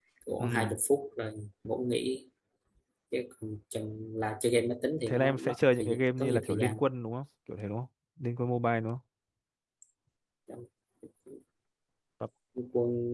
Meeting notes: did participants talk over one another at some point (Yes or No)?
Yes